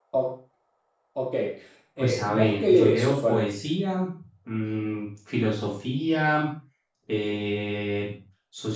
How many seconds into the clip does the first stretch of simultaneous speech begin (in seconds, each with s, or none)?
2.0 s